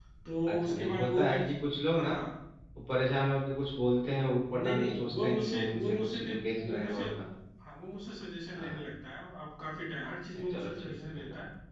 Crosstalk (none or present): present